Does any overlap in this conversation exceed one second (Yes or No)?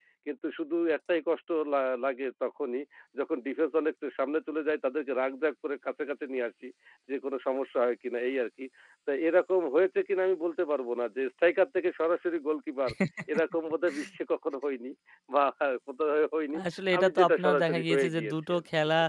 Yes